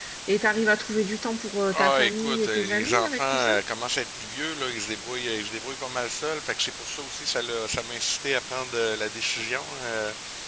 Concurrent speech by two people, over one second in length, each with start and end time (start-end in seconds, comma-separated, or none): 1.8-3.6